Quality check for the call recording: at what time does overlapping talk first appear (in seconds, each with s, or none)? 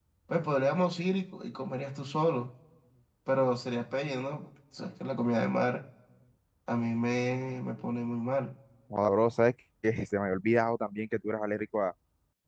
none